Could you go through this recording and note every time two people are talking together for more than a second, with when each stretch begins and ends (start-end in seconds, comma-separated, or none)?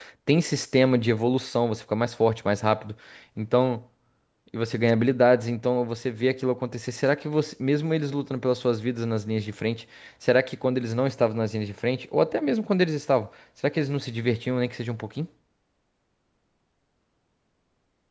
none